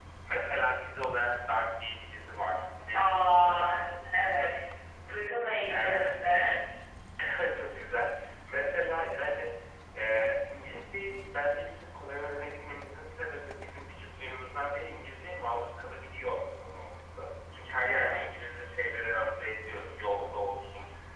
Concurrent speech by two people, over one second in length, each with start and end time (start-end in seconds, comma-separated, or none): 2.9-4.6